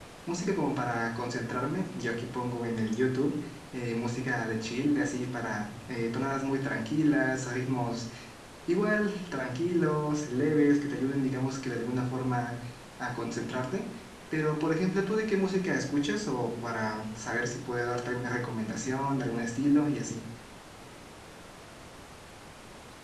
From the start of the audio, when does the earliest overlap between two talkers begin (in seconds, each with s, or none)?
none